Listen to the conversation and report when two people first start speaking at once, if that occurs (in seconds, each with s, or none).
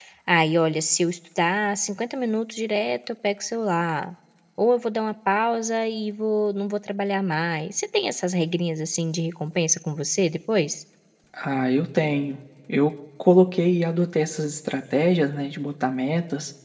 none